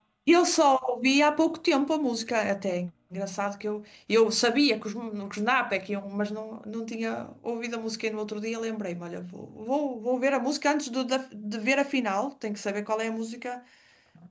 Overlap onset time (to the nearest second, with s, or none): none